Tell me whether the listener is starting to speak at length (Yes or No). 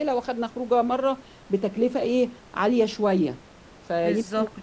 Yes